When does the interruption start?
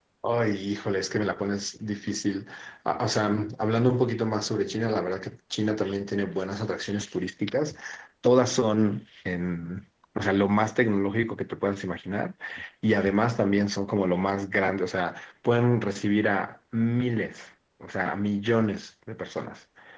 none

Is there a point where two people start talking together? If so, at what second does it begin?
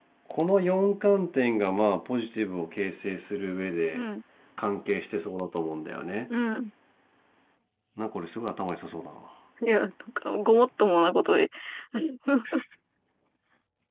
none

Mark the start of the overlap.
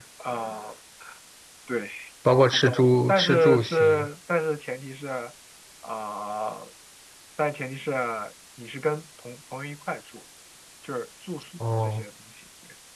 2.5 s

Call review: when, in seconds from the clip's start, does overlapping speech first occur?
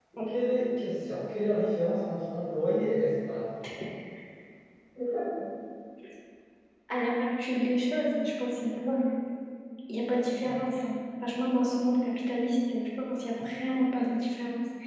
none

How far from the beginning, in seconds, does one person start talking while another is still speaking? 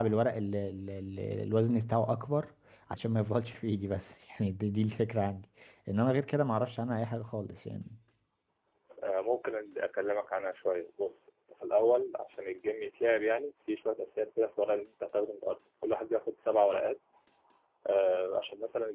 none

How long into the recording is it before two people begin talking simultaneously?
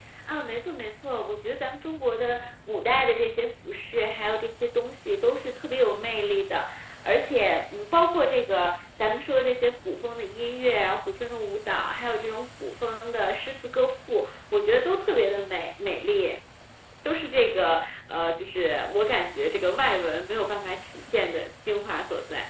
none

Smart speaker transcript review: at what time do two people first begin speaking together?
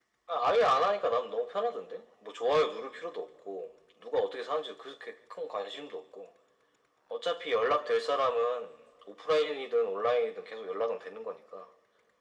none

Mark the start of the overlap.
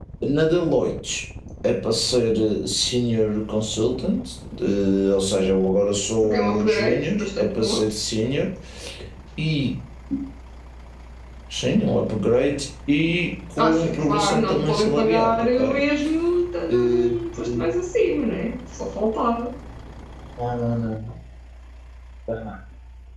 6.2 s

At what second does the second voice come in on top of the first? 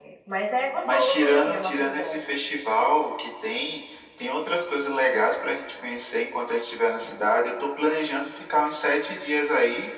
0.8 s

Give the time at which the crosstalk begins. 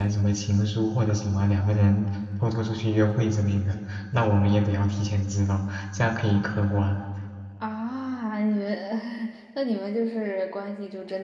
none

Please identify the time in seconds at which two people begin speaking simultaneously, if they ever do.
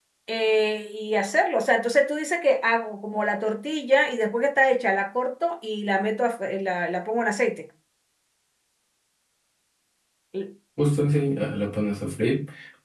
none

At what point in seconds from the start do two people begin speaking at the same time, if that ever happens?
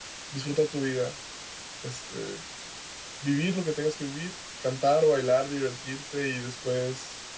none

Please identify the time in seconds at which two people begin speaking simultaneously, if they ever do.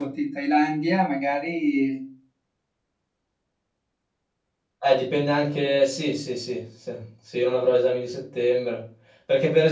none

